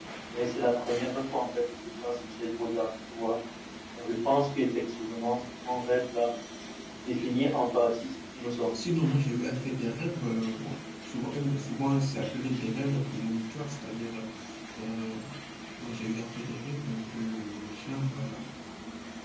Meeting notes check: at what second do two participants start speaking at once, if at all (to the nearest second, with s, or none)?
none